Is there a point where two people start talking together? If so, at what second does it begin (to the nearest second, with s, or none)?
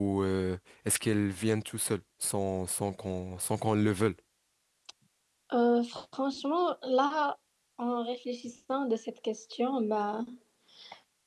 none